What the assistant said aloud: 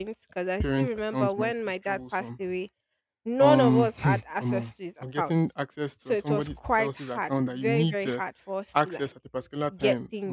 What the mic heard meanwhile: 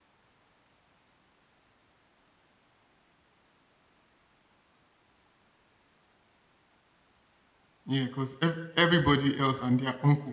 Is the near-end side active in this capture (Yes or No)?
Yes